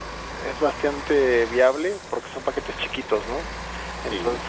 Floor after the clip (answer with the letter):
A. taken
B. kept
B